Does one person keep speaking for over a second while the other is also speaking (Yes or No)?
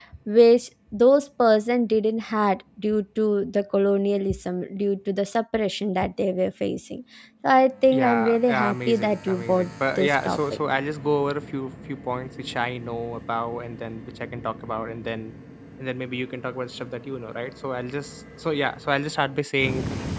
Yes